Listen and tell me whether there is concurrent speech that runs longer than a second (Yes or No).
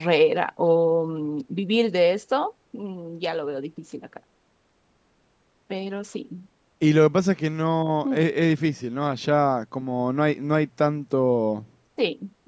No